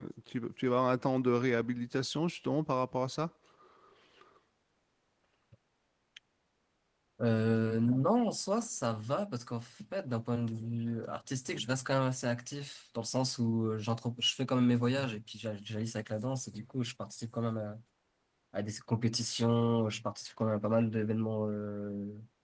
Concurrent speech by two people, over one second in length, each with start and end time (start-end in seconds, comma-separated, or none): none